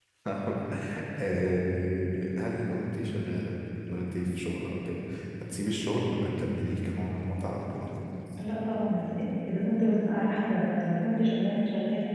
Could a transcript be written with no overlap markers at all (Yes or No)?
Yes